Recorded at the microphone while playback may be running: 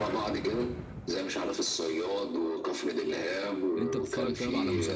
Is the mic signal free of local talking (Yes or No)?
No